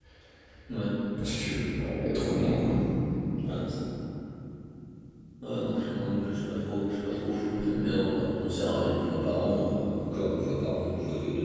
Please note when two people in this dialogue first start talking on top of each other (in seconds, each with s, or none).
none